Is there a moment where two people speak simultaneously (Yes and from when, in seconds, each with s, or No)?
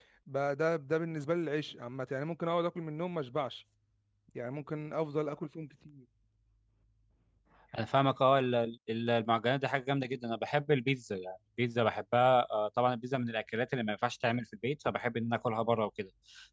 No